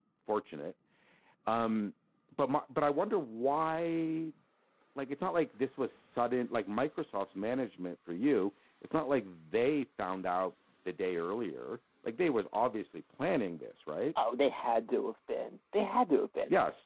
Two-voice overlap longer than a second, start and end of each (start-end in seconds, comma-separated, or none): none